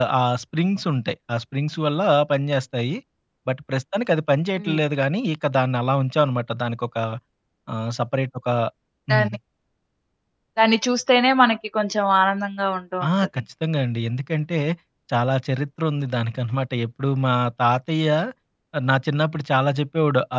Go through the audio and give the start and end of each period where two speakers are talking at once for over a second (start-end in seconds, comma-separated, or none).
none